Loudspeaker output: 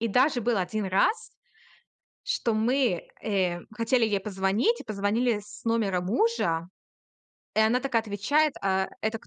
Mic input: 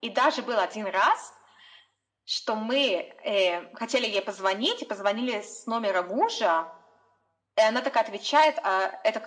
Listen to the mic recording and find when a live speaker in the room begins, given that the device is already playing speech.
none

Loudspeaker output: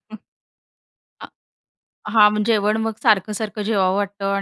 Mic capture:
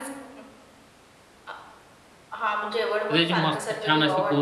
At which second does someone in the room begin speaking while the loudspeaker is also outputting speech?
3 s

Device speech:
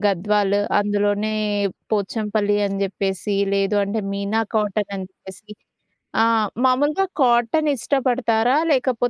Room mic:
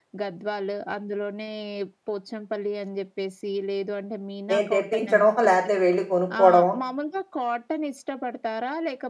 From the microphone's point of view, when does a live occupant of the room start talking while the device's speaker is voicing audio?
5 s

